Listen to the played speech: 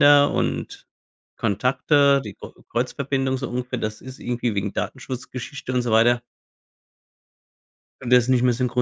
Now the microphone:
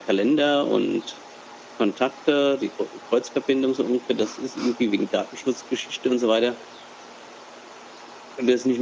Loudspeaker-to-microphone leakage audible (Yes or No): Yes